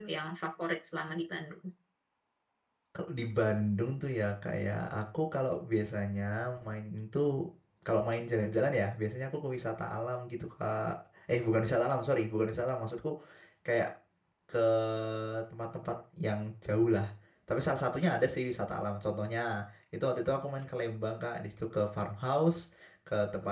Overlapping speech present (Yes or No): No